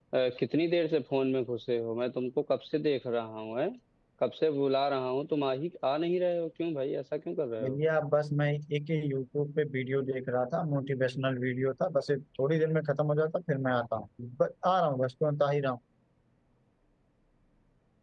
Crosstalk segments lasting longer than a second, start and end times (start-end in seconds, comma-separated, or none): none